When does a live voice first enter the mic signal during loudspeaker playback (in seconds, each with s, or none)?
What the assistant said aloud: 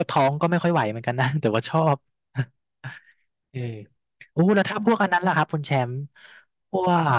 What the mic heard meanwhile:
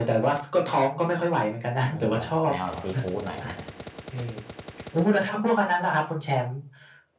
1.7 s